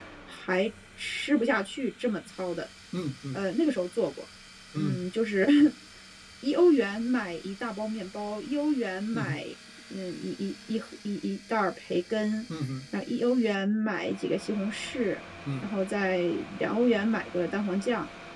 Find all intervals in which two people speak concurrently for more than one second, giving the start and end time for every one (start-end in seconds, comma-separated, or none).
none